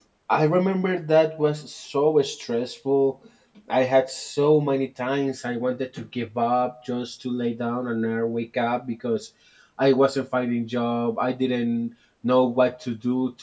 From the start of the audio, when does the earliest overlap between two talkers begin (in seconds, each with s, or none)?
none